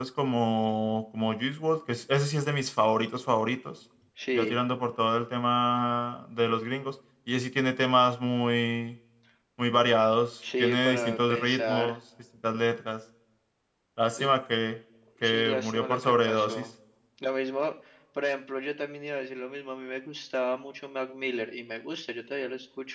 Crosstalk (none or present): present